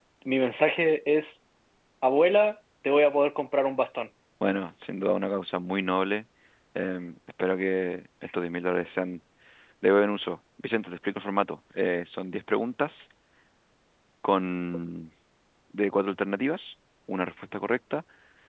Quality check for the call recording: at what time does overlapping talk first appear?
none

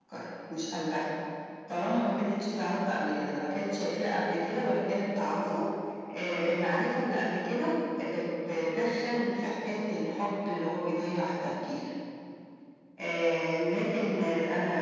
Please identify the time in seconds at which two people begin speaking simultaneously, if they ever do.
none

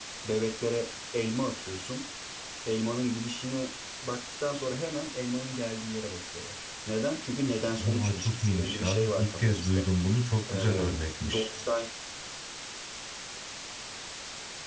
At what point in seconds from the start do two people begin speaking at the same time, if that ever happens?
7.8 s

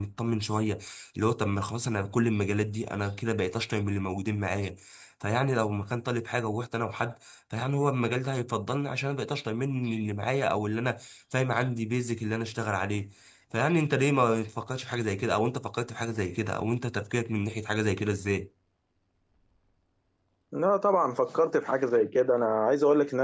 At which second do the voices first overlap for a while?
none

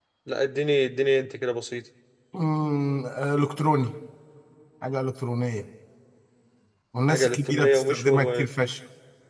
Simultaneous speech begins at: 7.1 s

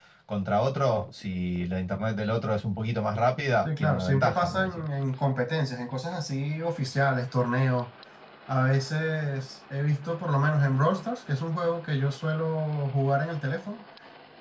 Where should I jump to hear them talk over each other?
3.6 s

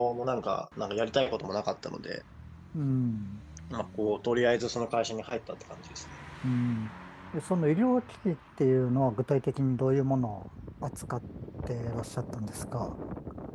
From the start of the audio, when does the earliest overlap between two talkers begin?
none

